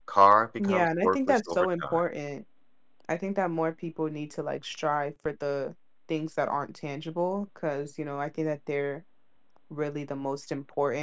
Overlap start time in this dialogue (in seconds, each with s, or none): 0.6 s